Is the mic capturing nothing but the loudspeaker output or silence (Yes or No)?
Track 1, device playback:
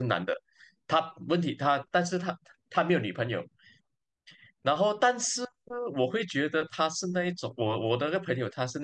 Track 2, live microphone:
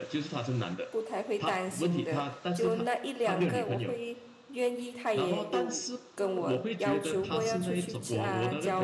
No